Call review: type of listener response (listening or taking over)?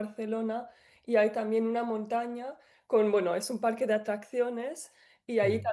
listening